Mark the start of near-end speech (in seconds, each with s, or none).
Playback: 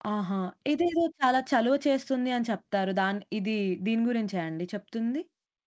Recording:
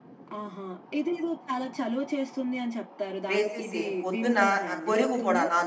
3.3 s